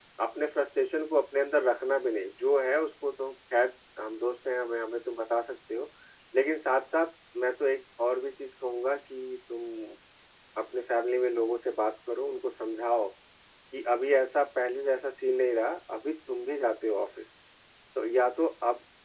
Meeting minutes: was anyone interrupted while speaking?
No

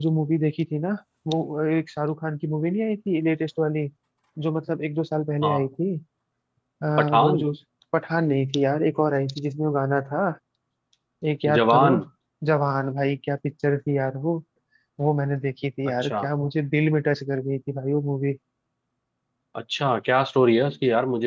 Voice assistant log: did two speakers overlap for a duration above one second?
No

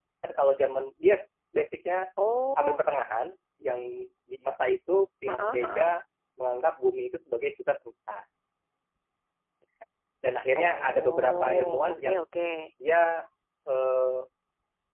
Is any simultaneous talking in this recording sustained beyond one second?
Yes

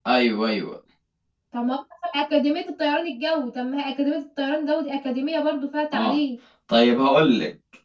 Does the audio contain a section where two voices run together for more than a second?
No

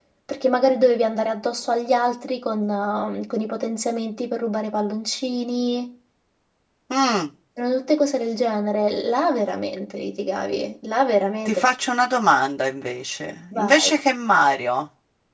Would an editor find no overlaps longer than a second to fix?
Yes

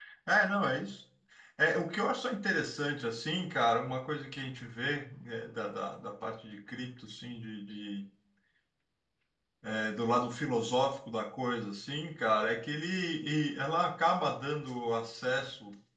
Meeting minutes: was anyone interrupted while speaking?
No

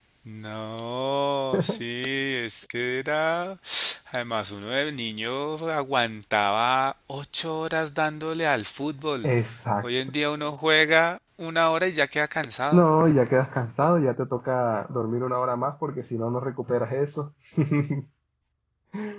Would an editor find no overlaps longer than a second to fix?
Yes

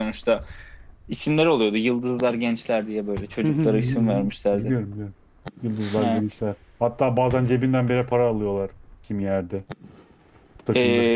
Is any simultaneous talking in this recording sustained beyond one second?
Yes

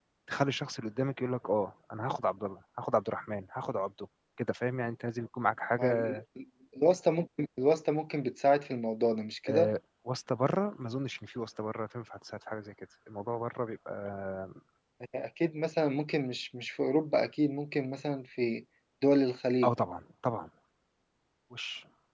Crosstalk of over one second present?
No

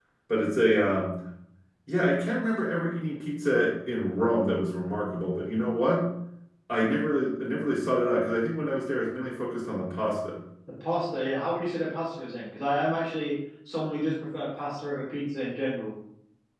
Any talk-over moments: No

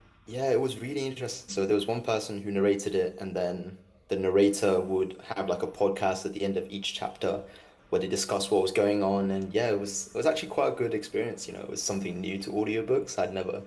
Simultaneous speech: No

